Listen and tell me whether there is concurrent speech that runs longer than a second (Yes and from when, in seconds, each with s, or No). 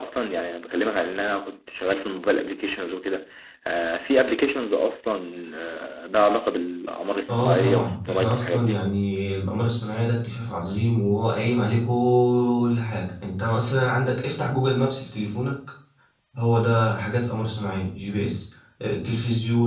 Yes, from 7.3 s